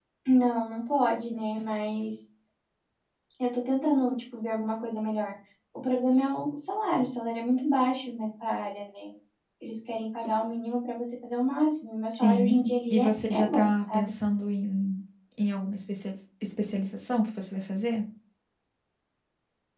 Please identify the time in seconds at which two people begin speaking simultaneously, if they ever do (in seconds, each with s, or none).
12.1 s